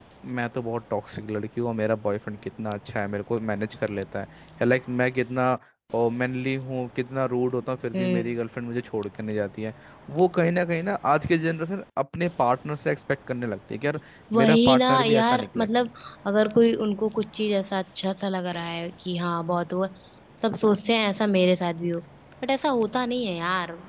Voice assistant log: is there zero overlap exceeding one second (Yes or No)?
No